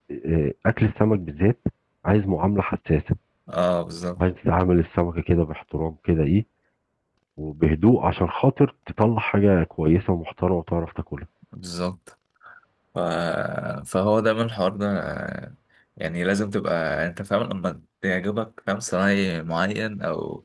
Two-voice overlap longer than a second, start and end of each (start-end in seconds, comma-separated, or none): none